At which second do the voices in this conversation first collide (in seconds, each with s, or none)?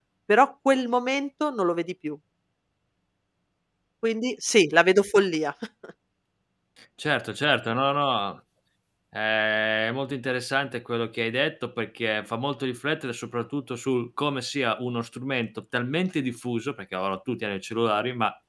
none